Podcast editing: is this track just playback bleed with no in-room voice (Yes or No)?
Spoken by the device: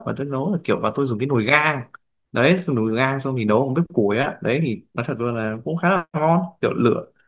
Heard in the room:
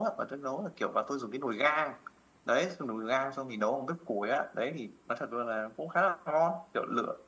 Yes